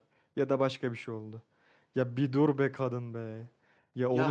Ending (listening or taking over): taking over